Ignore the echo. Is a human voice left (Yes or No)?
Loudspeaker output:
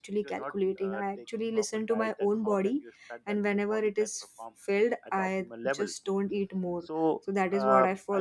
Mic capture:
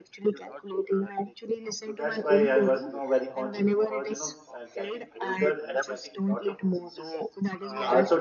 Yes